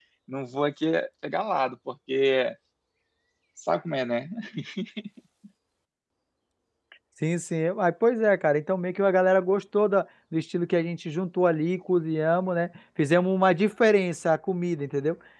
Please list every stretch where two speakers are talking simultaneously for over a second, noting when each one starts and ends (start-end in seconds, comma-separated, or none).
none